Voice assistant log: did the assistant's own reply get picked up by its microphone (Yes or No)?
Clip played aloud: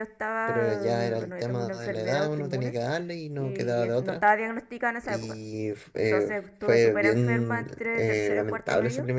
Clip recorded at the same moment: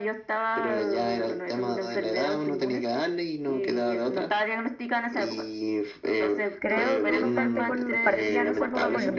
Yes